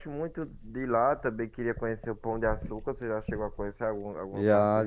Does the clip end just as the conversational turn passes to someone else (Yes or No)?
Yes